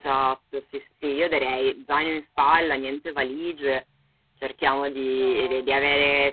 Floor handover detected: No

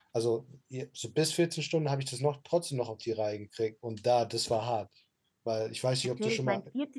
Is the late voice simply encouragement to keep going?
No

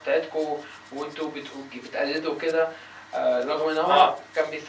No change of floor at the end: Yes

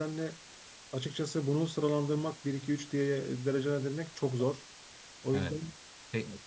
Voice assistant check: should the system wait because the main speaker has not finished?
No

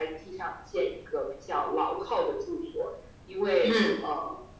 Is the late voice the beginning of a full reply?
No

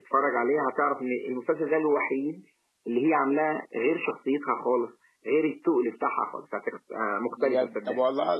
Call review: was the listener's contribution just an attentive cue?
No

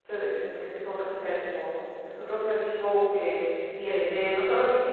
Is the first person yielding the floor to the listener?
No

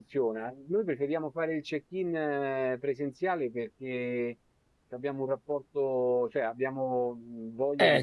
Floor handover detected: Yes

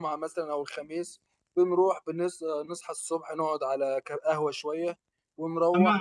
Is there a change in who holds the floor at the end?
No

